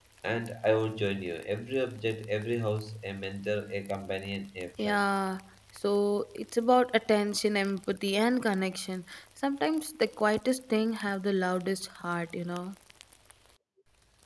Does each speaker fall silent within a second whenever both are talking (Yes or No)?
Yes